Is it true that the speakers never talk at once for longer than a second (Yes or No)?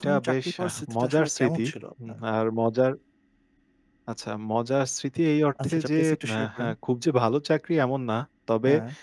No